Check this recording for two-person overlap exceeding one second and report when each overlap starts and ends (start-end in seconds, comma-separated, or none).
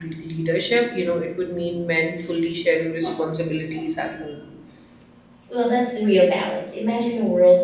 none